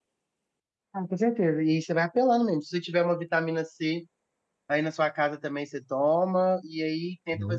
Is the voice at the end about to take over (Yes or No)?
No